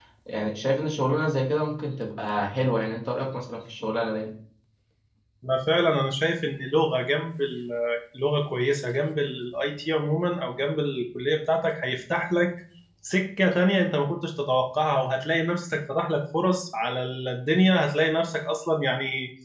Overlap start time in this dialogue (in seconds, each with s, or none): none